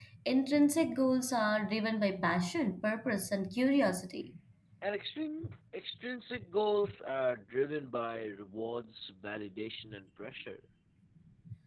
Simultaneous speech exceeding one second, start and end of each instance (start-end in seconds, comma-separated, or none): none